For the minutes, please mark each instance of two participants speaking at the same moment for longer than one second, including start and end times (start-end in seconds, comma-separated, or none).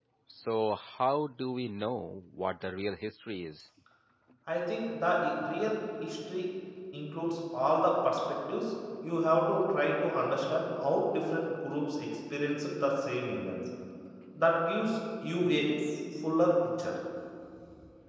none